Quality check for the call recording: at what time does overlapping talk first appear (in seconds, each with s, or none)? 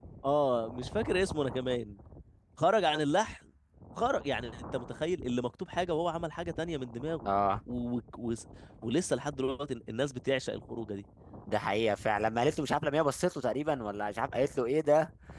none